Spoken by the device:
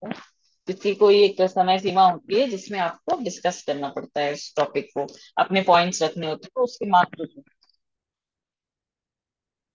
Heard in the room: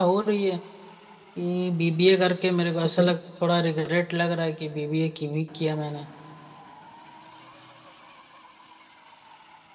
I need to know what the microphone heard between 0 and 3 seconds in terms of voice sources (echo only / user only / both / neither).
user only